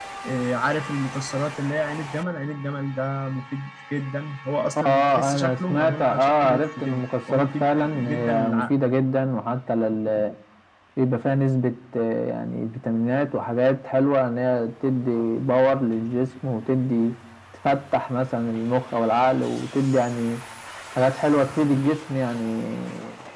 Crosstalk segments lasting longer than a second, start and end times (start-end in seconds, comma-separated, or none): 4.8-8.7